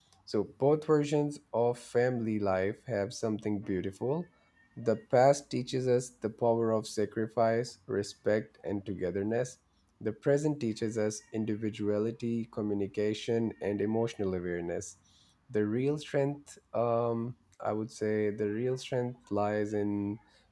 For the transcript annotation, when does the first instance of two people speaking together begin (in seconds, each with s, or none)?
none